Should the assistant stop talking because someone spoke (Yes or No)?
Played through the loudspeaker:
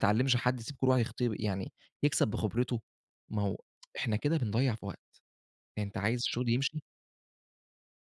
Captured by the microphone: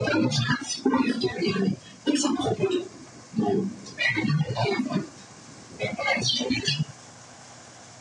No